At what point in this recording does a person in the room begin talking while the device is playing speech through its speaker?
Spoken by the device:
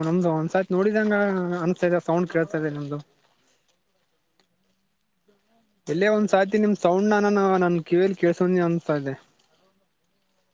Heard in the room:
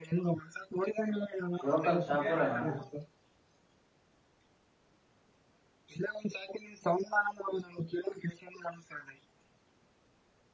1.7 s

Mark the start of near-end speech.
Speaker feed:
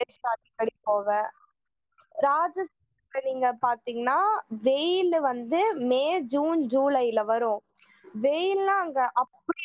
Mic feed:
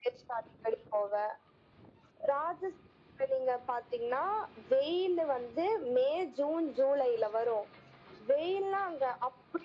none

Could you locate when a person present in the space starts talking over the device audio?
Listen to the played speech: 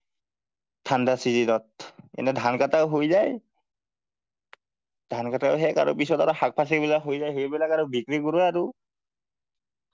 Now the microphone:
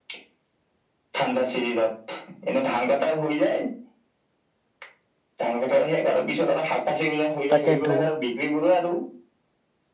7.5 s

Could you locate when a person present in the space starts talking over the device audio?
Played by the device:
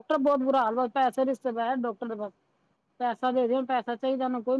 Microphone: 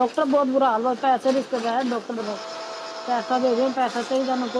none

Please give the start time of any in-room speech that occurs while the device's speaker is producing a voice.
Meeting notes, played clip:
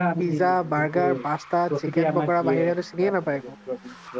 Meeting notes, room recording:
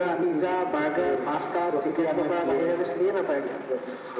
none

